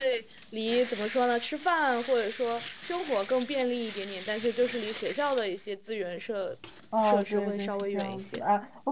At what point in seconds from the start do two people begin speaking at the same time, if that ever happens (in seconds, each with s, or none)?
7.0 s